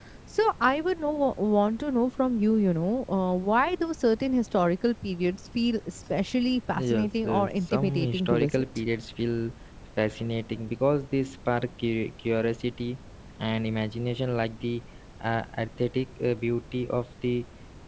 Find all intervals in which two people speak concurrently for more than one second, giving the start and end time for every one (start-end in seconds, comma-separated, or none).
6.8-8.6